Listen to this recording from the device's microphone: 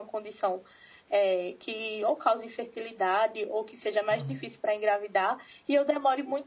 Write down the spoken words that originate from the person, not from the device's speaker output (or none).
Aham.